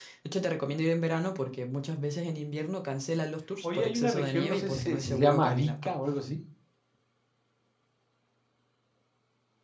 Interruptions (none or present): present